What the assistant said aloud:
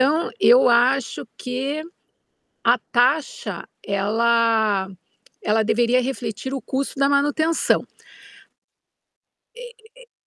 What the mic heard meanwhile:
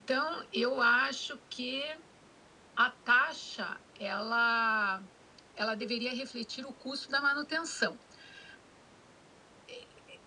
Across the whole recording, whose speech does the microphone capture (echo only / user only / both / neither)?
echo only